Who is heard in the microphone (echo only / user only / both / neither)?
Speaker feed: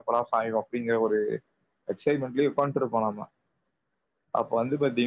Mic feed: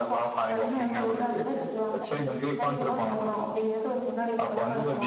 both